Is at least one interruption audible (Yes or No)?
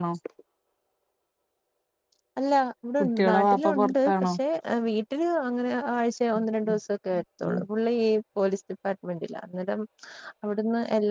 Yes